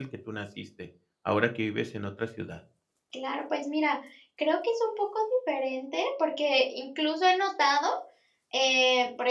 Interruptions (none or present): none